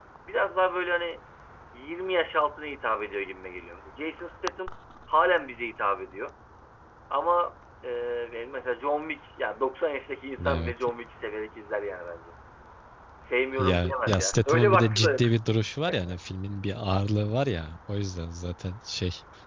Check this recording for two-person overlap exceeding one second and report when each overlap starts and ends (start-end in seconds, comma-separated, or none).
13.6-15.3